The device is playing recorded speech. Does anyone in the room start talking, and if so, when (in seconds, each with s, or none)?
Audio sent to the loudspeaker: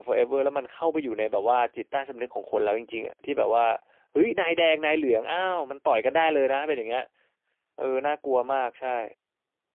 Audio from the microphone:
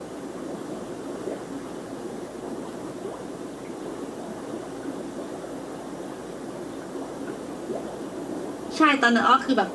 8.8 s